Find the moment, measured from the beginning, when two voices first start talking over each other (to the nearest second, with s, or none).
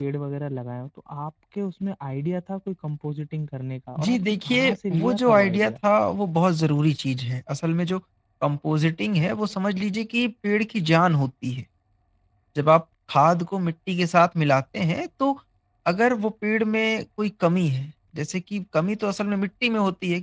4 s